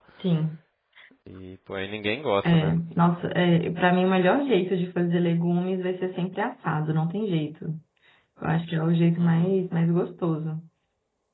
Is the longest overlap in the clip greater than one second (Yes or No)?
No